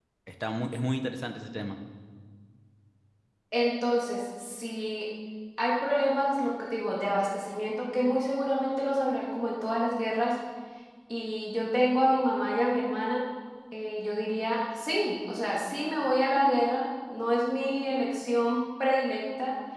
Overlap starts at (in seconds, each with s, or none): none